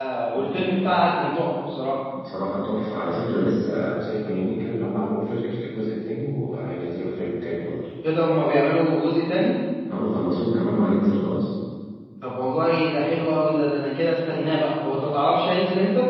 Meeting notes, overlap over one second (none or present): none